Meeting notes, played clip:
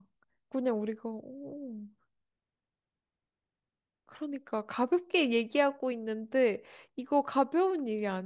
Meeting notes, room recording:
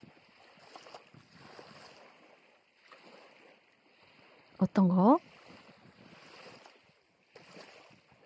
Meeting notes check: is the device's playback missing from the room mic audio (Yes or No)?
Yes